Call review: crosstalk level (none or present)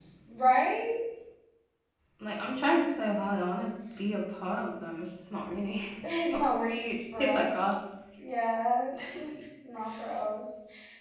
present